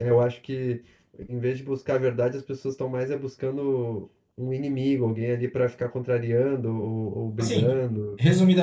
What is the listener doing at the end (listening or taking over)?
taking over